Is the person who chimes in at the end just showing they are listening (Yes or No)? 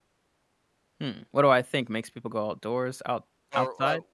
No